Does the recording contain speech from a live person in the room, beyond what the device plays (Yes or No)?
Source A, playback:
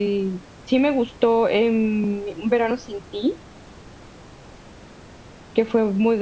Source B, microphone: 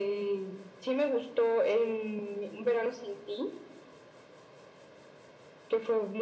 No